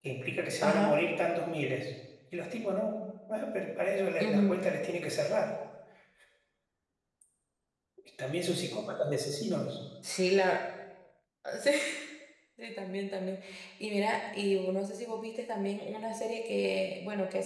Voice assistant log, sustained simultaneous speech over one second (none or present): none